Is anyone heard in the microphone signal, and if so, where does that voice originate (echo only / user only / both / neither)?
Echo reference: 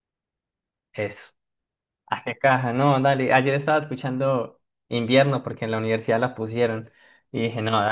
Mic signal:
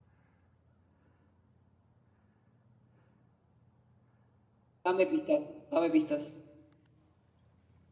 user only